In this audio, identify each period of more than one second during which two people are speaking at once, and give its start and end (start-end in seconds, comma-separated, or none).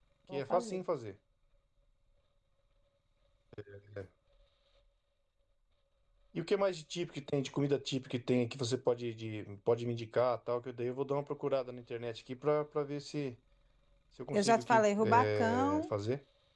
14.3-15.9